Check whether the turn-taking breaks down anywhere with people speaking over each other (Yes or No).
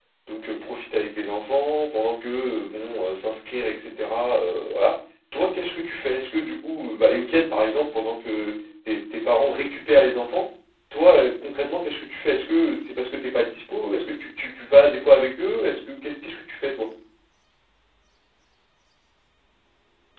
No